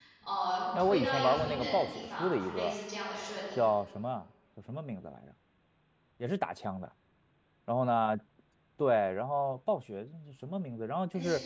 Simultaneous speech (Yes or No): Yes